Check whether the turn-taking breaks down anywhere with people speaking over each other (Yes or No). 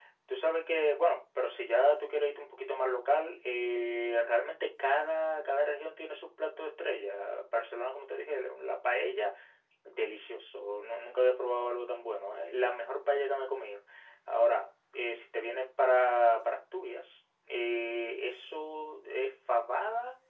No